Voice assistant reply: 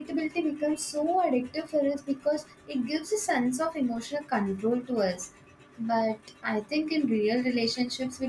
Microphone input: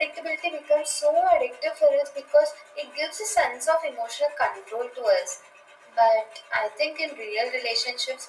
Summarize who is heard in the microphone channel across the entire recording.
echo only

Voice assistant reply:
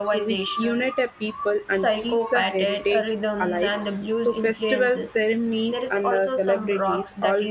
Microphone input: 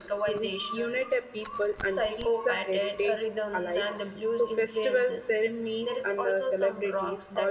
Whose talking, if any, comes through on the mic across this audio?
echo only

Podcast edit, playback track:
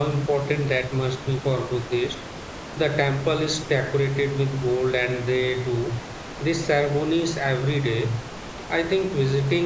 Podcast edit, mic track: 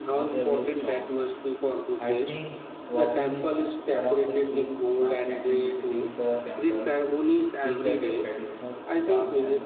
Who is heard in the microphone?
both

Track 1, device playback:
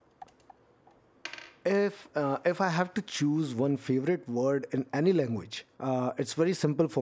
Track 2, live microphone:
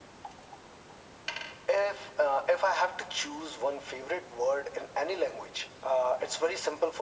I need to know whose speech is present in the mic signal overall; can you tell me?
echo only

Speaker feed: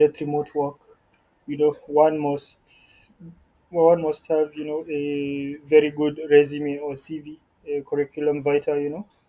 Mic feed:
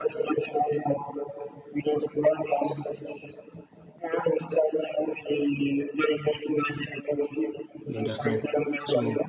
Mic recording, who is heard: both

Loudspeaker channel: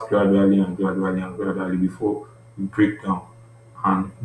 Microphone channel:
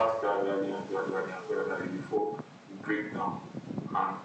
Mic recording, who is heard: echo only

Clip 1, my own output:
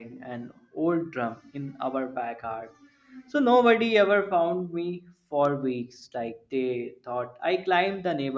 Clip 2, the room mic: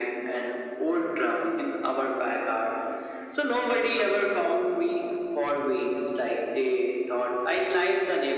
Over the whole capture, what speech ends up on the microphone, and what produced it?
echo only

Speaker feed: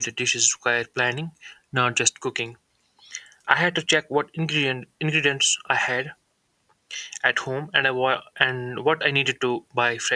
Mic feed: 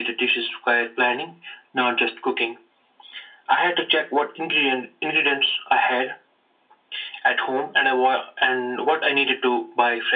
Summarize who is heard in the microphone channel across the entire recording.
echo only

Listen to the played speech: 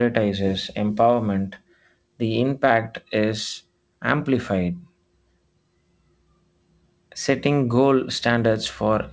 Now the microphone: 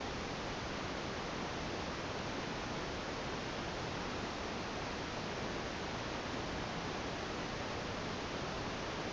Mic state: neither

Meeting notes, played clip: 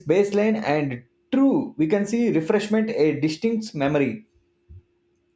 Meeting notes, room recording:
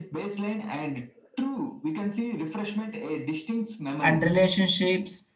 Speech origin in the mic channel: both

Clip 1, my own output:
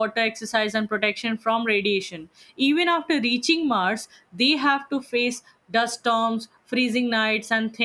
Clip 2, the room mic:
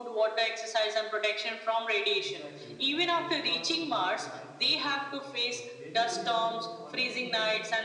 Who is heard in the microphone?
both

